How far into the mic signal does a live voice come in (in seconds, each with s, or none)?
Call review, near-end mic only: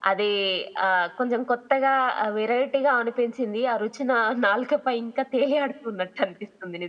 none